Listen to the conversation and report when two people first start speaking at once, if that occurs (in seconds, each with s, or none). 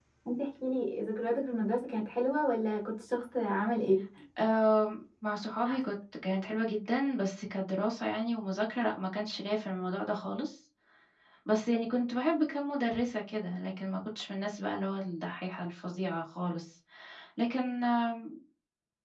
none